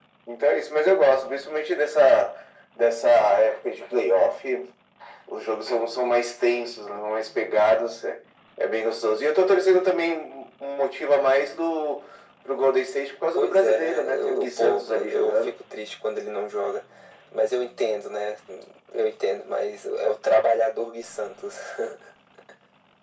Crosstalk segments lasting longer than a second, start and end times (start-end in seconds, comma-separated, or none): 13.4-15.6